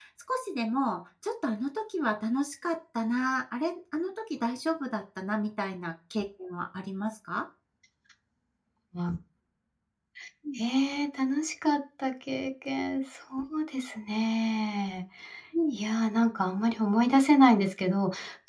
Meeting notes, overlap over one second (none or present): none